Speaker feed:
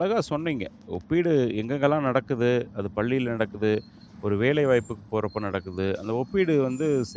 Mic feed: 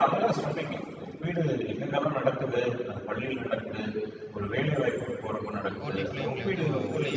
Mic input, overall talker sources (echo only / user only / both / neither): both